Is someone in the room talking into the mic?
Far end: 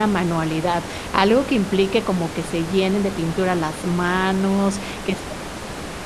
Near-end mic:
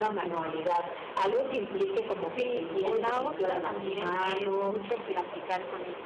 Yes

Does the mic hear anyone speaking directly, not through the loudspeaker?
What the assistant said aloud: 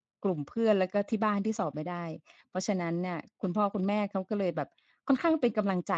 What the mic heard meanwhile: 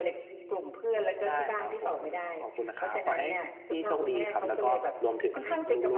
Yes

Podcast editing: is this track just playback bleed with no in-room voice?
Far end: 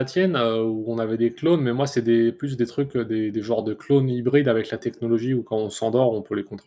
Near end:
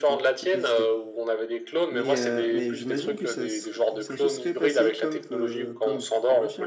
No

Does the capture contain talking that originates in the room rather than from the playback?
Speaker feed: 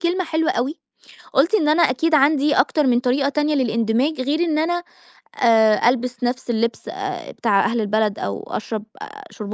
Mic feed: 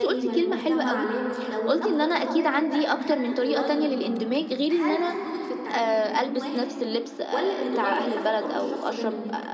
Yes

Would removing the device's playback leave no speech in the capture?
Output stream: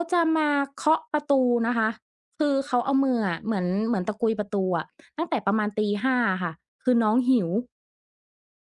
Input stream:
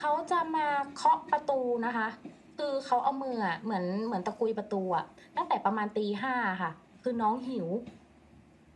Yes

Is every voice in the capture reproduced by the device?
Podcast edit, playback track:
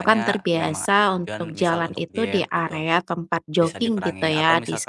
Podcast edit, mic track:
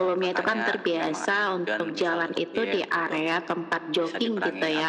Yes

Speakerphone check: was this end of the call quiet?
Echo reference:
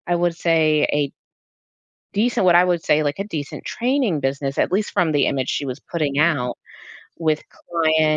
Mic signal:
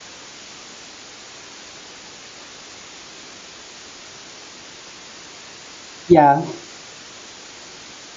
No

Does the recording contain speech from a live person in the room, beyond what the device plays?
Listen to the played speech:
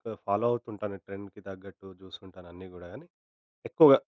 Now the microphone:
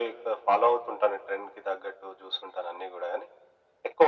No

